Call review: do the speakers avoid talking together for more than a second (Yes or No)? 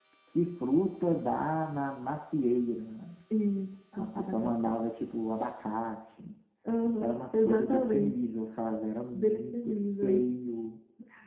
No